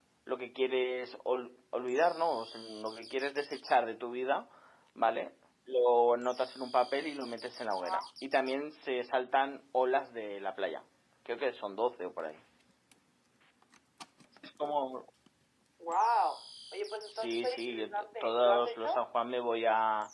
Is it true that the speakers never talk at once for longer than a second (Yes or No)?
No